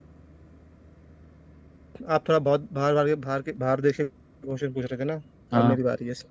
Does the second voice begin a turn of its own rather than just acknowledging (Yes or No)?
No